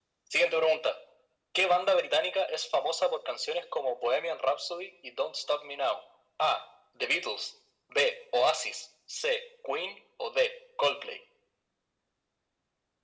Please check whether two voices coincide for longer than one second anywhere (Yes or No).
No